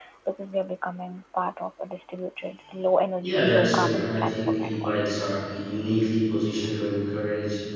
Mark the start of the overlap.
3.2 s

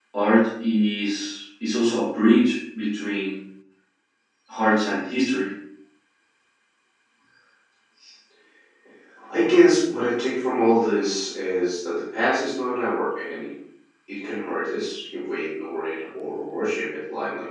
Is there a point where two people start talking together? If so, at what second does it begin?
none

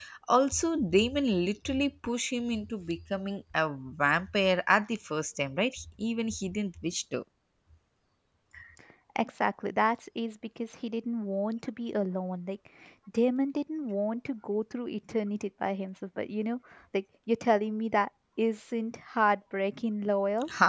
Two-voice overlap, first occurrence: none

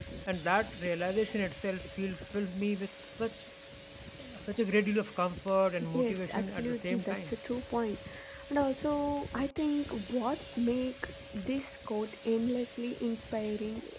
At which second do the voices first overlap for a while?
5.7 s

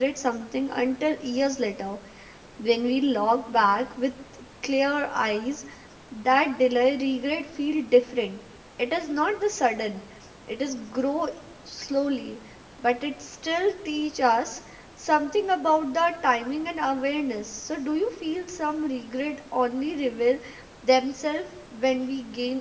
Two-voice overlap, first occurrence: none

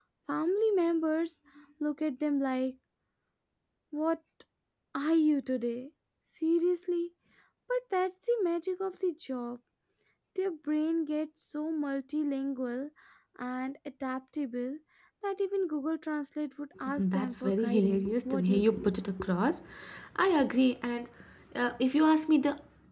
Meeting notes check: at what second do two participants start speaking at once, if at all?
16.9 s

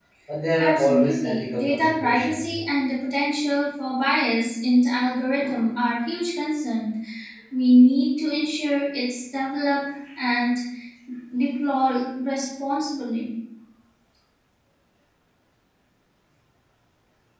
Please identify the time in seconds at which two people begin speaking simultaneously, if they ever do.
0.6 s

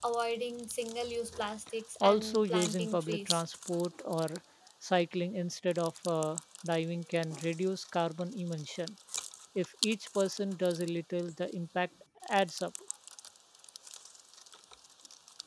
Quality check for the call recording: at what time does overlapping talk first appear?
2.0 s

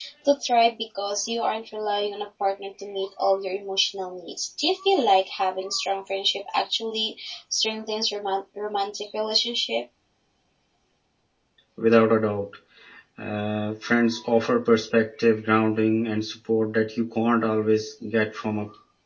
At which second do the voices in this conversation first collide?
none

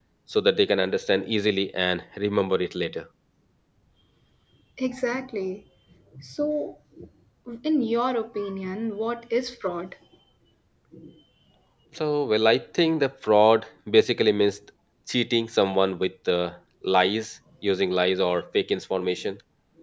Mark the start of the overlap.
none

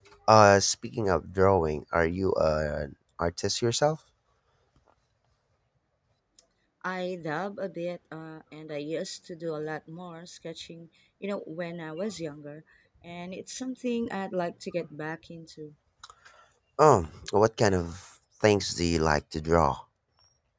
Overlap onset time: none

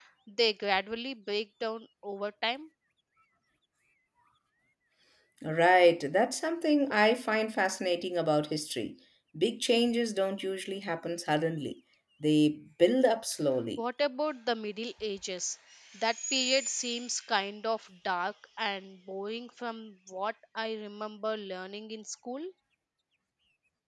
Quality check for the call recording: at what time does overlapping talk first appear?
none

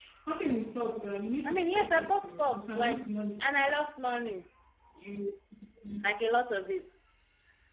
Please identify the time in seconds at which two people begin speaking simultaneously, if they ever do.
1.4 s

